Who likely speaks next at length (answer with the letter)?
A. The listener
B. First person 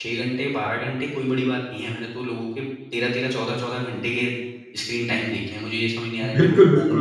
A